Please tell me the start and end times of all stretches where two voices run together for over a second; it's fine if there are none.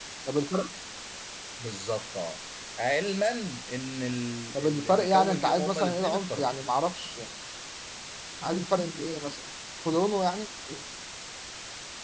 4.6-6.6

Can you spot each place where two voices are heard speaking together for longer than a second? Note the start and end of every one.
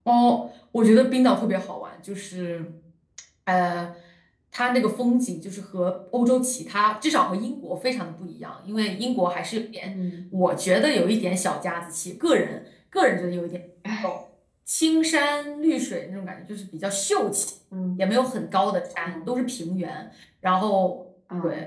none

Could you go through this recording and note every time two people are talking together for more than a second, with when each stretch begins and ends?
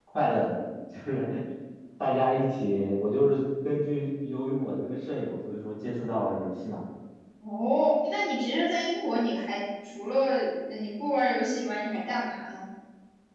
none

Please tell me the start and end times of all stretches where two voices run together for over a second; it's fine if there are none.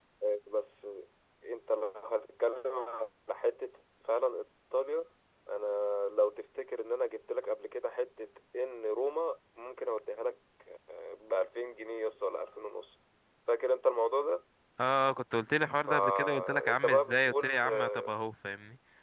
15.9-18.1

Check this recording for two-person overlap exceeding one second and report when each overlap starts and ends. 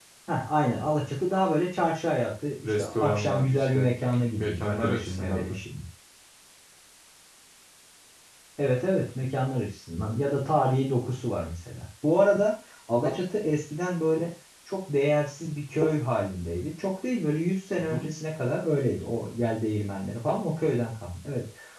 2.6-5.6

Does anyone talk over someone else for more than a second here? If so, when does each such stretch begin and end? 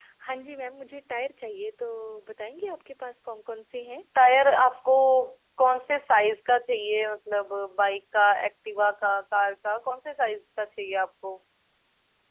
none

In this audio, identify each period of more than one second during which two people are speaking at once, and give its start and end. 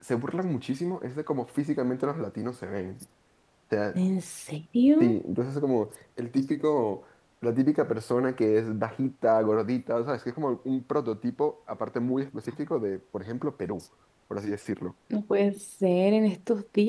none

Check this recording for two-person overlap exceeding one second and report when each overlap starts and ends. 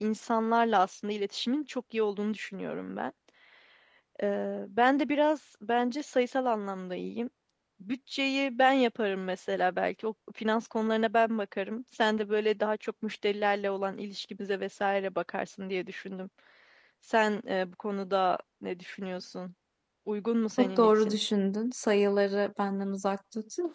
none

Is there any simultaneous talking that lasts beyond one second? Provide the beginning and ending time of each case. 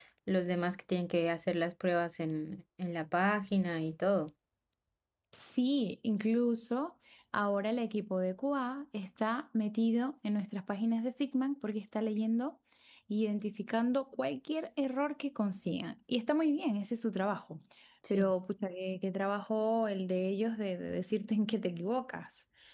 none

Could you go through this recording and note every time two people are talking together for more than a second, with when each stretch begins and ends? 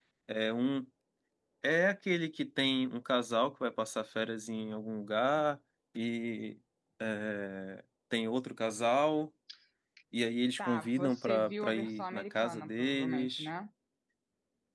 10.6-13.5

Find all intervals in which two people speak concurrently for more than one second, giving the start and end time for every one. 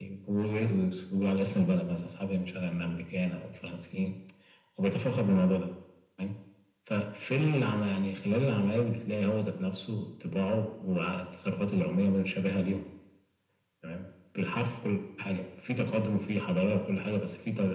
none

